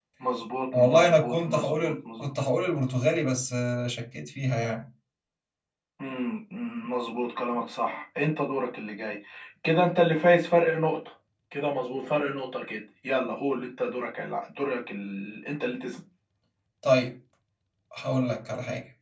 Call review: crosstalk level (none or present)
present